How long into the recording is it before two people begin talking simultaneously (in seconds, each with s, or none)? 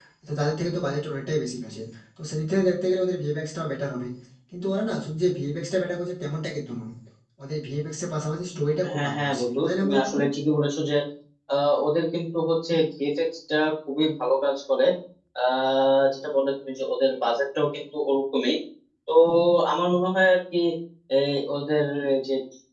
8.8 s